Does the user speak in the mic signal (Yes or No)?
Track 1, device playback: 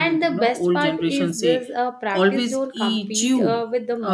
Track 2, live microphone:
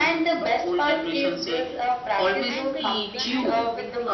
Yes